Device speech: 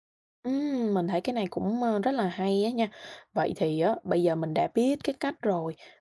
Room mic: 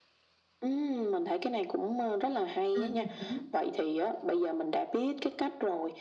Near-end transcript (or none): Ừm hứm,